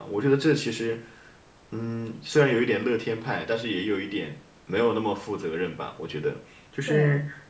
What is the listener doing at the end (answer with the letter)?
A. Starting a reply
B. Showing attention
B